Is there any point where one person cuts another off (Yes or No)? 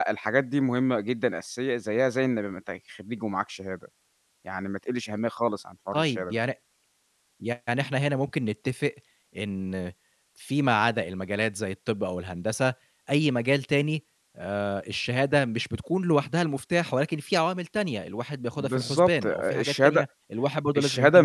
Yes